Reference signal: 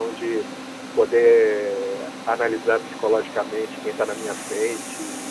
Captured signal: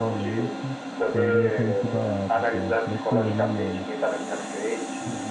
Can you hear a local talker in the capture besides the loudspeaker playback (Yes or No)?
Yes